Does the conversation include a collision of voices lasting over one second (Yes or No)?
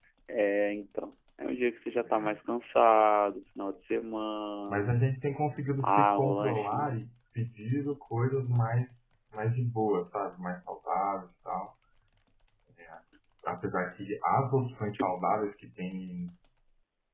Yes